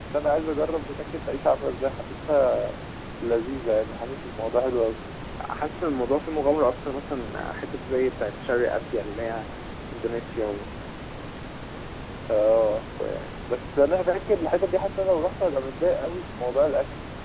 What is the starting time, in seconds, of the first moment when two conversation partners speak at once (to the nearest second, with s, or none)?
none